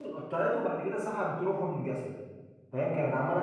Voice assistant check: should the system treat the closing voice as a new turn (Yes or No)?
No